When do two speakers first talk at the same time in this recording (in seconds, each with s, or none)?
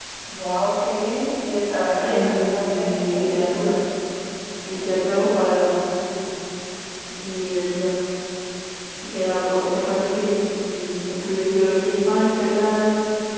2.0 s